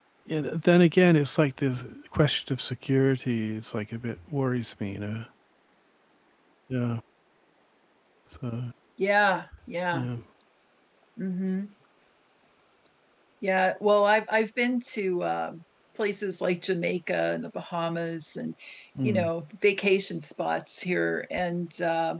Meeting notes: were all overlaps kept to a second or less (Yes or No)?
Yes